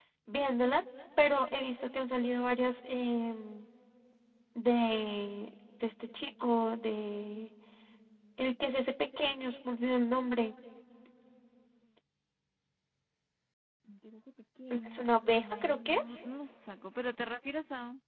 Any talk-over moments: Yes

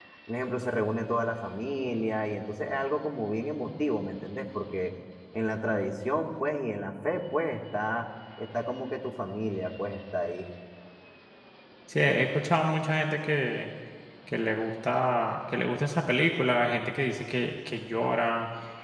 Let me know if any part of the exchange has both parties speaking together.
No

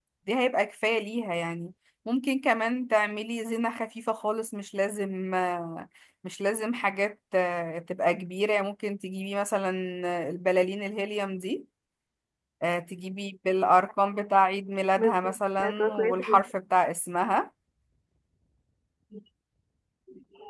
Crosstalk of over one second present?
Yes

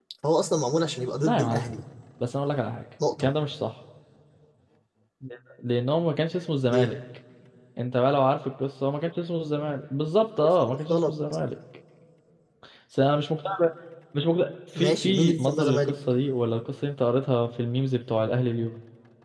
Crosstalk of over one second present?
Yes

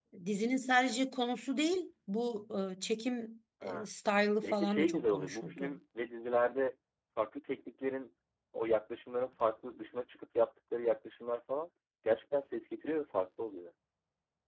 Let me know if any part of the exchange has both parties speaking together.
Yes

